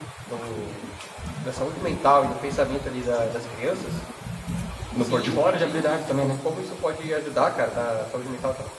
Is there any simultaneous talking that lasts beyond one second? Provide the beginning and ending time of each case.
5.0-6.3

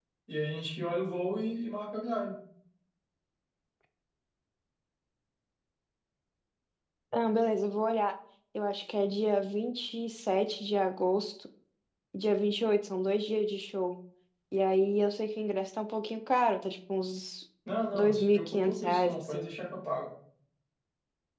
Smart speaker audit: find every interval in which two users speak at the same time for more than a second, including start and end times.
17.9-19.5

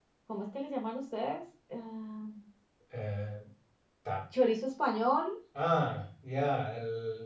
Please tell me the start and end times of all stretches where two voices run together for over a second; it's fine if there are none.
none

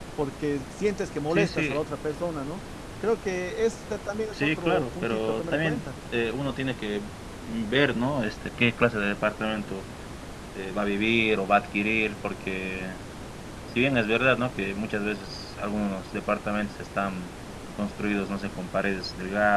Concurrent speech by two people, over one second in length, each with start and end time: 4.3-5.8

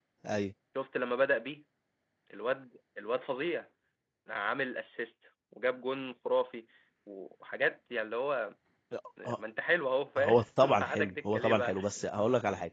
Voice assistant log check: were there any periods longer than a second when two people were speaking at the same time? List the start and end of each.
10.2-11.7

